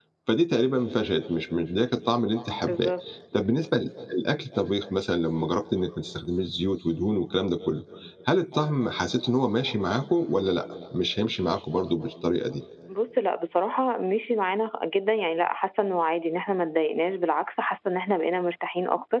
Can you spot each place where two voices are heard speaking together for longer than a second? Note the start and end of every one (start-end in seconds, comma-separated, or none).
none